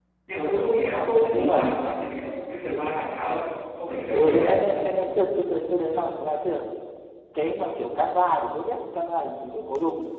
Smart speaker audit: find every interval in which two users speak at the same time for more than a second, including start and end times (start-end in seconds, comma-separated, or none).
none